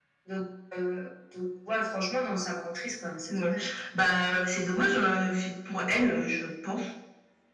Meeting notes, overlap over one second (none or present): none